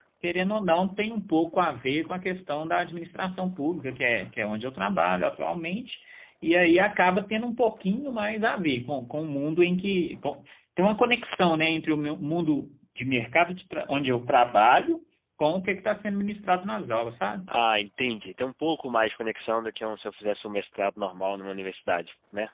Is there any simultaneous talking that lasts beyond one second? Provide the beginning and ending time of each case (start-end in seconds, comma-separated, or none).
none